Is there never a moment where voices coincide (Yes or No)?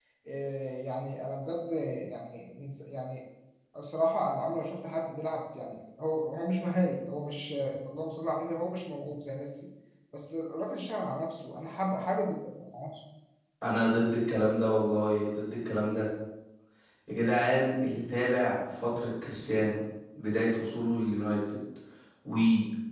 Yes